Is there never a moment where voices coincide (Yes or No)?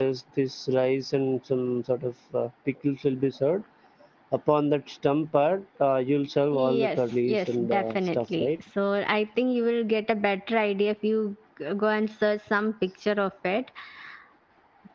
No